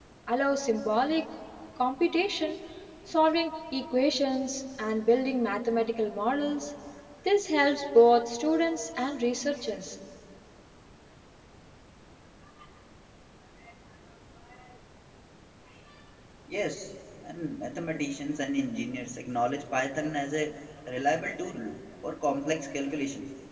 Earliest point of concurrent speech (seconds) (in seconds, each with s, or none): none